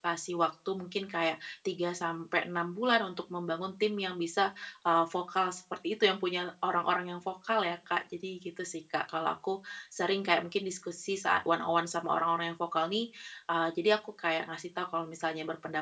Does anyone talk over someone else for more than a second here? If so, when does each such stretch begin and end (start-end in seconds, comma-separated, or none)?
none